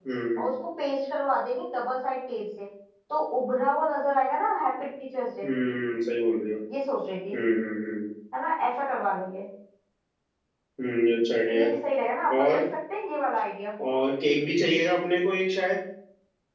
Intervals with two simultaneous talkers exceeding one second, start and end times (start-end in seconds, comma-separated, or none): none